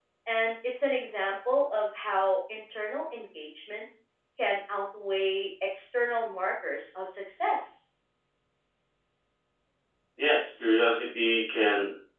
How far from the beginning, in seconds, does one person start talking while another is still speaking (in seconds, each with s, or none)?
none